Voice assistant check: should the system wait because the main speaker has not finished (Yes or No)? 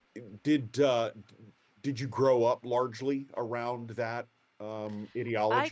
No